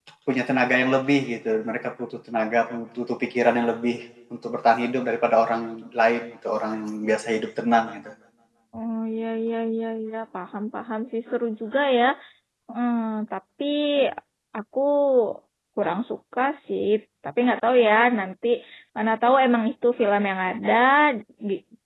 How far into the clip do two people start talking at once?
none

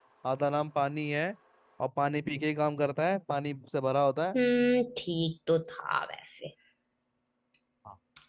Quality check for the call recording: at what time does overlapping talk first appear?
none

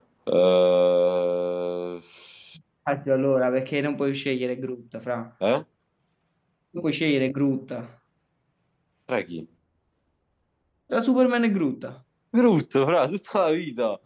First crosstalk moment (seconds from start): none

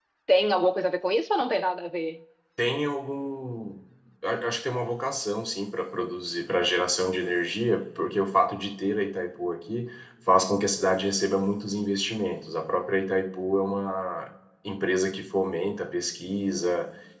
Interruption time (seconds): none

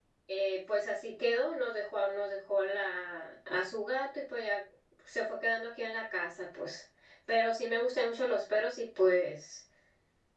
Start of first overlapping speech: none

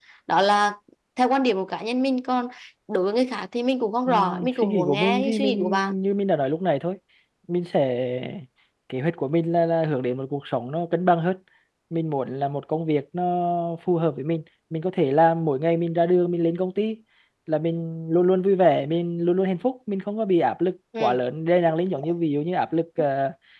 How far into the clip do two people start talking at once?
4.1 s

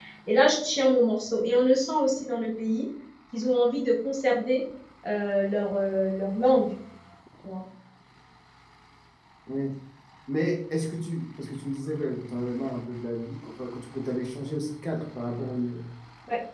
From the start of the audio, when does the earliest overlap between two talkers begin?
none

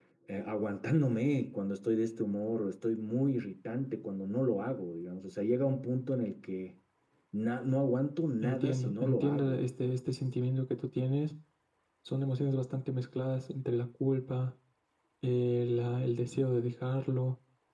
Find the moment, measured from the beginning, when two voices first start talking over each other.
8.4 s

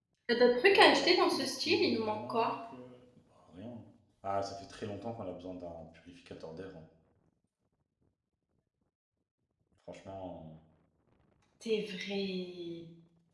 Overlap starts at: 0.7 s

